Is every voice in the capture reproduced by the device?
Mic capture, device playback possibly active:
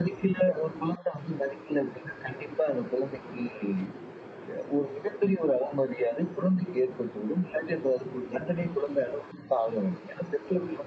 Yes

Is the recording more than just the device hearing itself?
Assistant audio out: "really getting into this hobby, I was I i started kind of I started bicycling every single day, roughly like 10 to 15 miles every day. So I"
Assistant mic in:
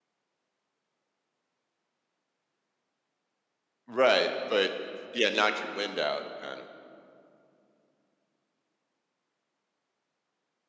Yes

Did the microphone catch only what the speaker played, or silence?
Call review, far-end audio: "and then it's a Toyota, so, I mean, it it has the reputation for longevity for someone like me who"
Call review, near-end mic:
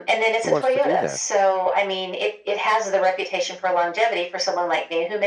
No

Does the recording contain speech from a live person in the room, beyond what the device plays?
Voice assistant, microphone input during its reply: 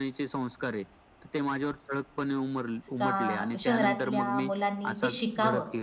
Yes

